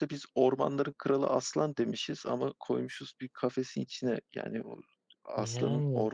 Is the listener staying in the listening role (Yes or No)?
Yes